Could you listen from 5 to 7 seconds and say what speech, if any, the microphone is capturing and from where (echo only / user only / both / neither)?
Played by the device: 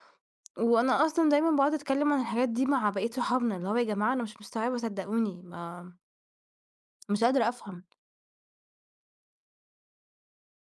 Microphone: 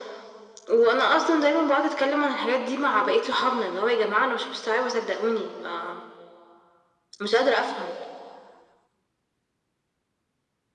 echo only